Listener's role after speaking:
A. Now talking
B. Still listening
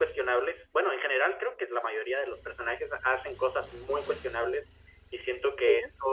B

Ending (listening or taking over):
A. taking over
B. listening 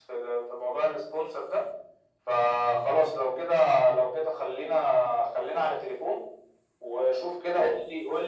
B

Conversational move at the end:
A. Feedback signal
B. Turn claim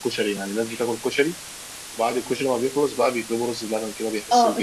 B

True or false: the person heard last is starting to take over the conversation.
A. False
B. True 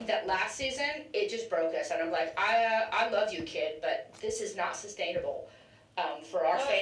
B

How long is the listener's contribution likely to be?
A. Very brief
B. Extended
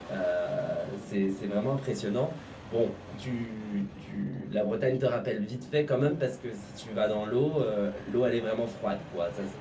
A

